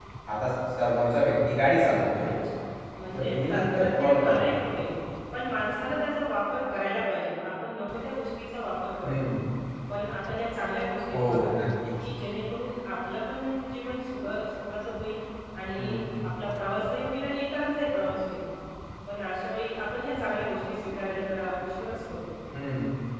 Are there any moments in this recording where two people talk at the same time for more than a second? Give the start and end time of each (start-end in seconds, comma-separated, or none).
3.1-4.5